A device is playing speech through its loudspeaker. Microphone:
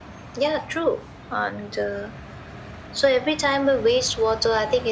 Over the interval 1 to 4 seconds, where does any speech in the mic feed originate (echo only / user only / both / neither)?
echo only